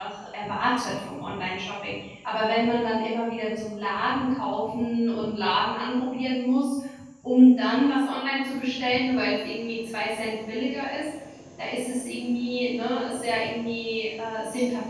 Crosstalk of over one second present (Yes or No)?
No